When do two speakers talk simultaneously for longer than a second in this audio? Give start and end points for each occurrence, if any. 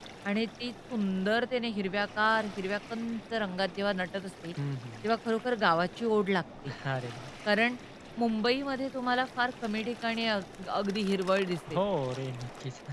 none

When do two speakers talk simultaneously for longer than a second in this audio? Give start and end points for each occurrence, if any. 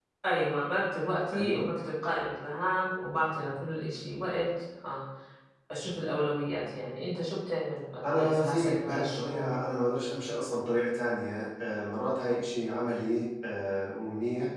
8.1-9.5

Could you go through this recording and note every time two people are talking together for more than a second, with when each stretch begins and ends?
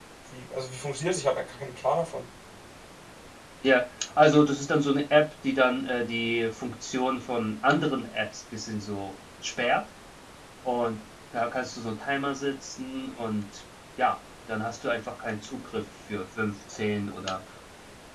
none

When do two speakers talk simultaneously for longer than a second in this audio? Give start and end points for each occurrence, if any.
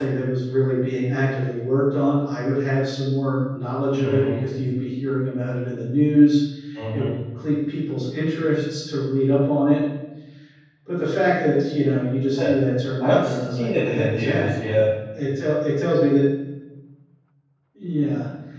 13.0-14.5

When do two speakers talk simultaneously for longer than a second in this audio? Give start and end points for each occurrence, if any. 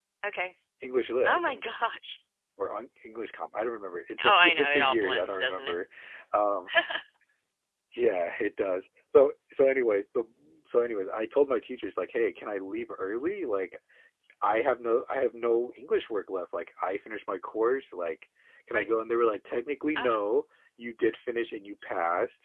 4.2-5.7

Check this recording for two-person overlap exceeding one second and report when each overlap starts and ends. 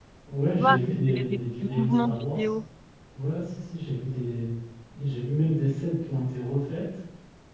0.6-2.2

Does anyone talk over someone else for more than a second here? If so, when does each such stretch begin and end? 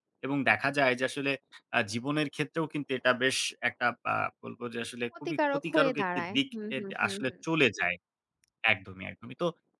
5.2-7.3

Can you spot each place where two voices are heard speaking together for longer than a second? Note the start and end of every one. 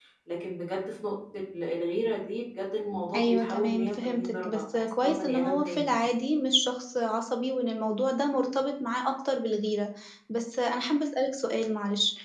3.1-5.9

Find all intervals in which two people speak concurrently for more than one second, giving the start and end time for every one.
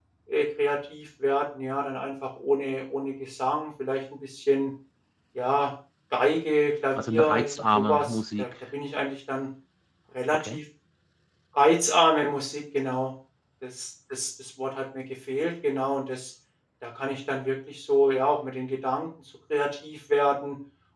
6.9-8.5

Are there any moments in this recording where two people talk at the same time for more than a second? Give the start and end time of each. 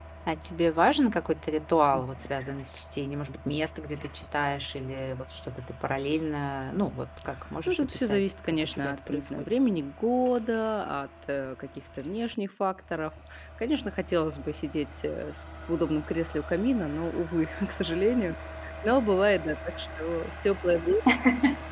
7.7-9.5

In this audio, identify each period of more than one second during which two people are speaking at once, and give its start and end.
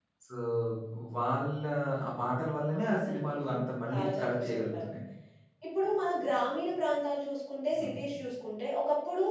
2.8-4.8

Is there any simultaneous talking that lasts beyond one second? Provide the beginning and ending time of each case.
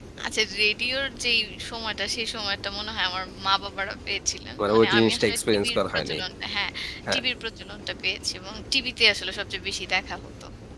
4.7-6.2

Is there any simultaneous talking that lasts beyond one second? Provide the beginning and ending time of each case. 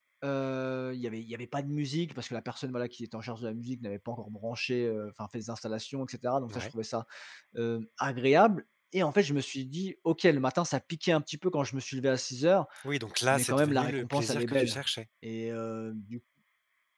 13.3-14.8

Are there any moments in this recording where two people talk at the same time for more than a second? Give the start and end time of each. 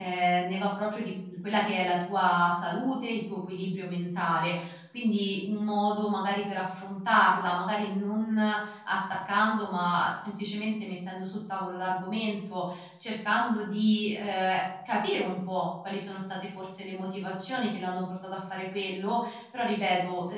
none

